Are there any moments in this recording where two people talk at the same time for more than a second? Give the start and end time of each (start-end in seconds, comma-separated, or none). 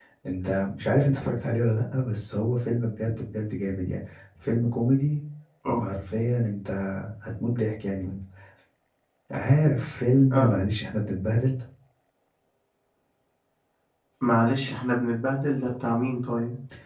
none